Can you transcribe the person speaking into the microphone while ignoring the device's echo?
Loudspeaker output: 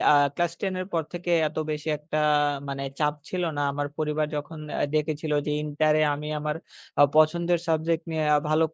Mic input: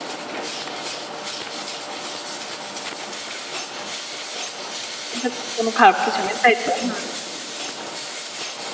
এটা তো কোনো খারাপ কিছু নেই, তাই তো? হুম।

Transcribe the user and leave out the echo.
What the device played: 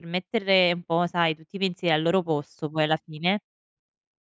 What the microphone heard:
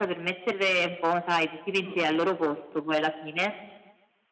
Mh-mh,

